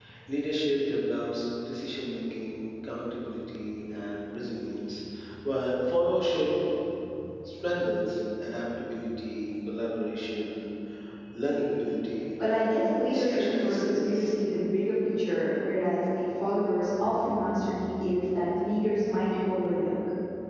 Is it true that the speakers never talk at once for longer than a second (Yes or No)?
No